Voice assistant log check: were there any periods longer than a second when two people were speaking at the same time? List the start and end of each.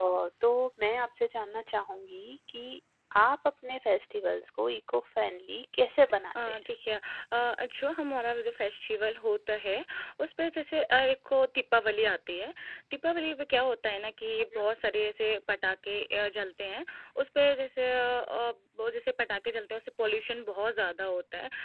none

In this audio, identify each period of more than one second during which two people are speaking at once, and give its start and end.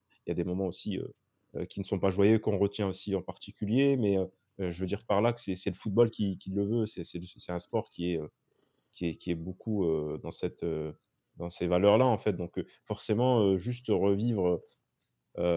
none

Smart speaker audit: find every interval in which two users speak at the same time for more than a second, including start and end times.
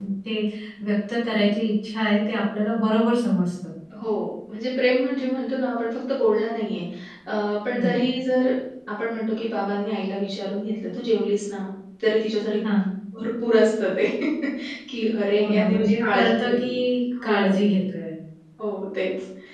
15.4-16.7

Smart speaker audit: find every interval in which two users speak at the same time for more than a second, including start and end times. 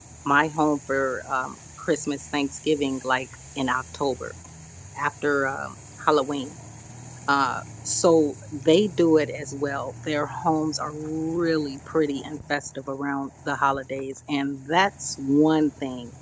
none

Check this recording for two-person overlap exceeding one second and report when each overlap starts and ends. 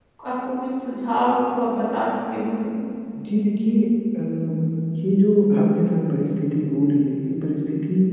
none

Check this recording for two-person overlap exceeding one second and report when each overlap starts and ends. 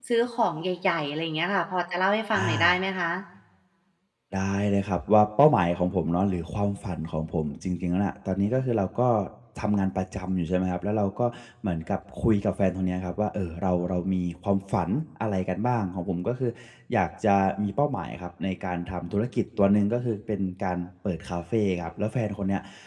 none

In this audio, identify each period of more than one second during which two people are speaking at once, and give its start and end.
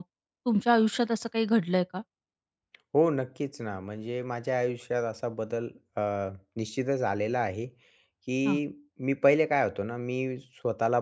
none

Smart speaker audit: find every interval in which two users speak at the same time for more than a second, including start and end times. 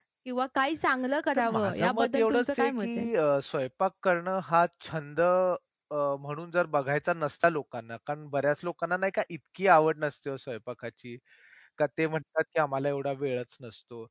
1.3-3.1

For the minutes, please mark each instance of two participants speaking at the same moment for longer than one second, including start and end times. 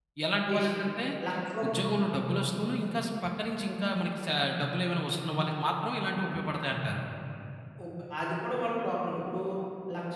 none

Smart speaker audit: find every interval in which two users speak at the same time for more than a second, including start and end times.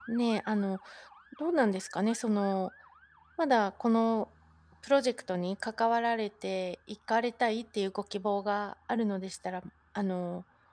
none

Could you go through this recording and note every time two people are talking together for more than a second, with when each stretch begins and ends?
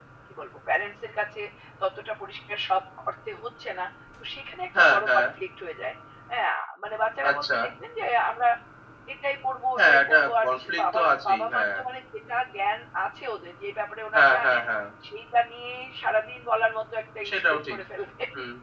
9.8-11.6

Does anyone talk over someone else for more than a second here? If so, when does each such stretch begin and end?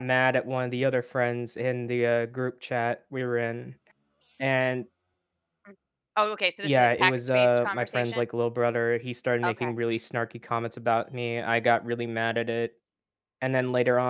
6.6-8.2

